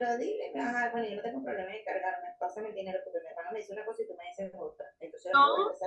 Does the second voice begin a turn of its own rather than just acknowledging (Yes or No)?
No